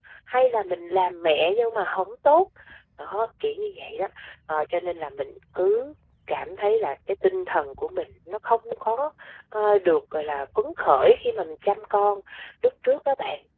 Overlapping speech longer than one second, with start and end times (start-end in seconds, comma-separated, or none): none